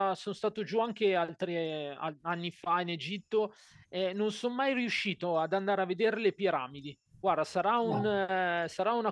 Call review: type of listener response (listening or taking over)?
listening